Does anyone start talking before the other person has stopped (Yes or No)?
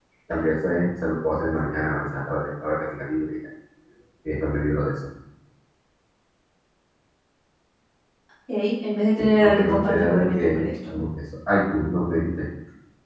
Yes